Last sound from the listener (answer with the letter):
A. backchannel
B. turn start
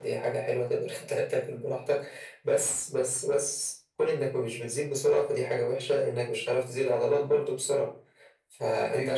A